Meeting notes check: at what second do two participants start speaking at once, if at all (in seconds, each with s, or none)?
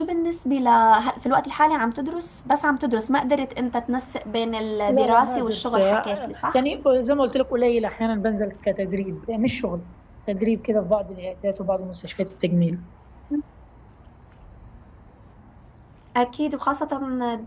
4.9 s